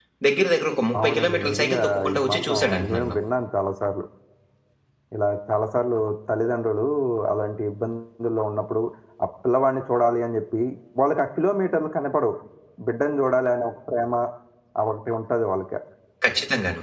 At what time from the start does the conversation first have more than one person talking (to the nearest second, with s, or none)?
1 s